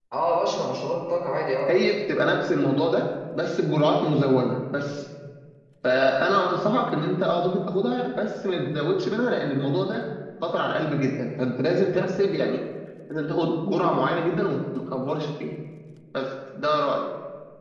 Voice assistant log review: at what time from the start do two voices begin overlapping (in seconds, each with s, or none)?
none